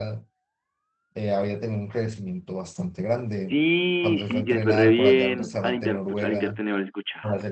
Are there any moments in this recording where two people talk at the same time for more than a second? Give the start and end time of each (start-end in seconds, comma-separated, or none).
4.0-6.6